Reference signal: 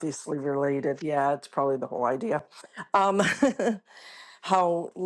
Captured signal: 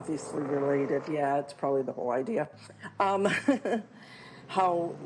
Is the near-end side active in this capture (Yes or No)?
No